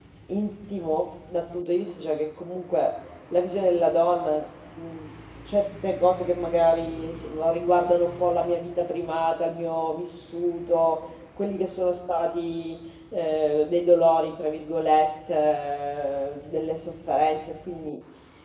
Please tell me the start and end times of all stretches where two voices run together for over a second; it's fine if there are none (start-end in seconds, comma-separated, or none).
none